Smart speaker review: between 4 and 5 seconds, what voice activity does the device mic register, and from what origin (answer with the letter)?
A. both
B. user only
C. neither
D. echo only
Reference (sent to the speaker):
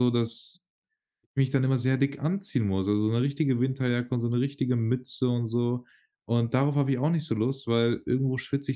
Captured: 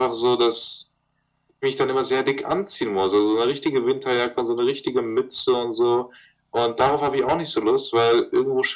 D